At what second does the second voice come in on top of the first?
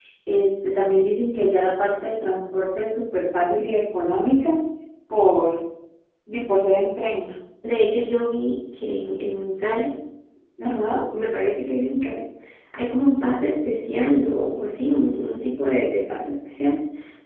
none

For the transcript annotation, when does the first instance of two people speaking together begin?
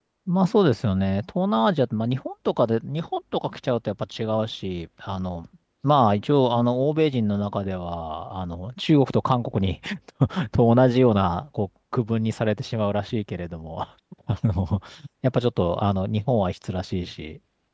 none

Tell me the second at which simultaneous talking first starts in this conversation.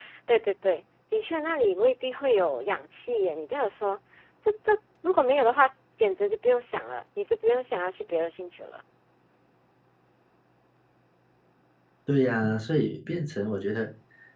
none

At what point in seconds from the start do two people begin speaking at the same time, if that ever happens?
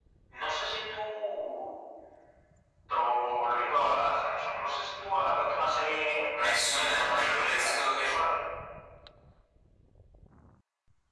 6.3 s

